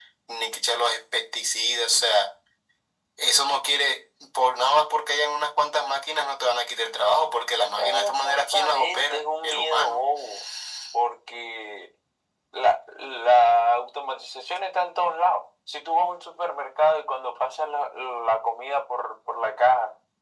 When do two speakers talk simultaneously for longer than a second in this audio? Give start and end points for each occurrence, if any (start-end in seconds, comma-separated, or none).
7.8-10.1